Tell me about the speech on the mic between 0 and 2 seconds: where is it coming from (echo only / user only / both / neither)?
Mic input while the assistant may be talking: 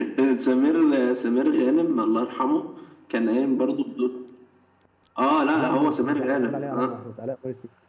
echo only